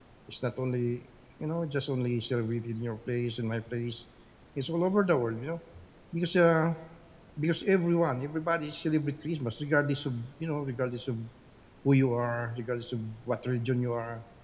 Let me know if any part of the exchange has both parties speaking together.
No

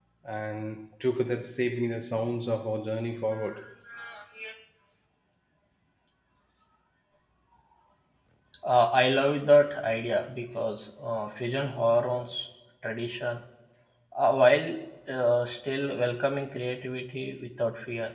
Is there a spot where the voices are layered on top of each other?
No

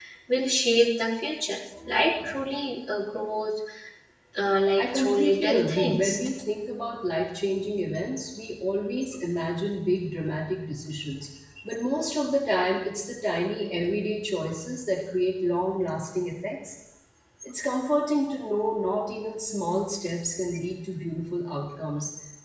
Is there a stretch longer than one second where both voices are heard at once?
Yes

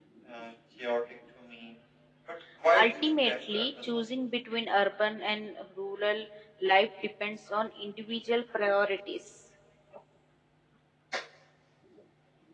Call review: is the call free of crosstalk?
No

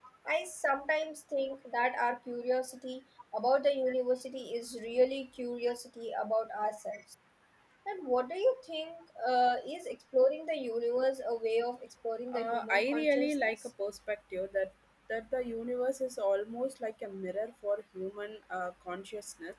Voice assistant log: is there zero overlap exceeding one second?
No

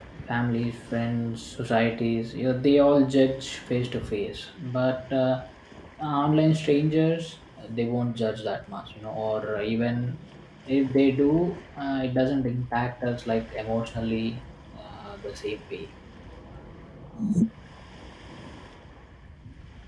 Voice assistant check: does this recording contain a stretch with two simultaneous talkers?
No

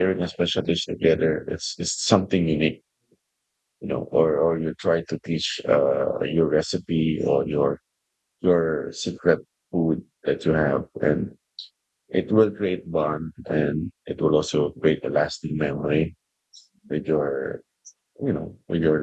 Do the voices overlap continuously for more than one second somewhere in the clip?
No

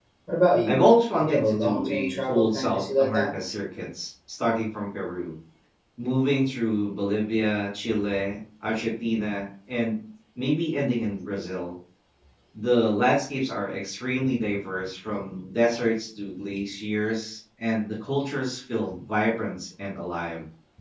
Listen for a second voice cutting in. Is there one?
Yes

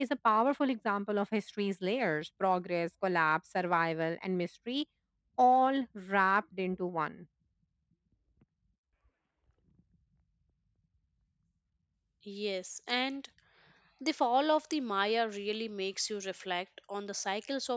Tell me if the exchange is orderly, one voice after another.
Yes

